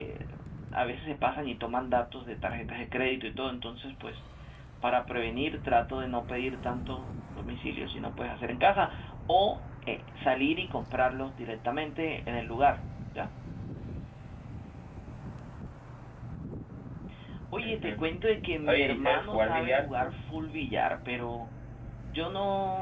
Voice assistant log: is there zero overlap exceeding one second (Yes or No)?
No